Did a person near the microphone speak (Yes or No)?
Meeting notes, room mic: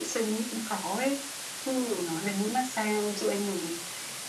No